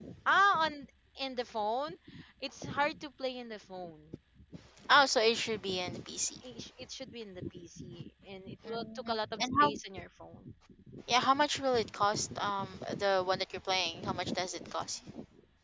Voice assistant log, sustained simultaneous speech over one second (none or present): present